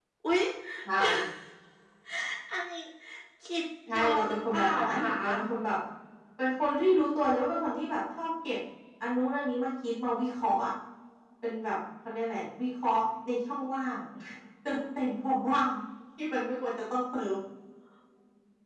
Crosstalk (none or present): present